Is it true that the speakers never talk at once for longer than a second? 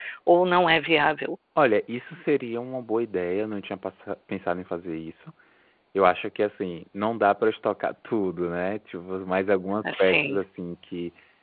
Yes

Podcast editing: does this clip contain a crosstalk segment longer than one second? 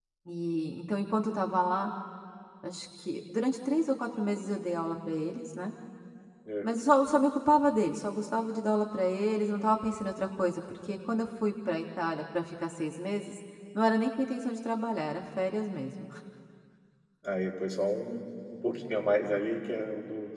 No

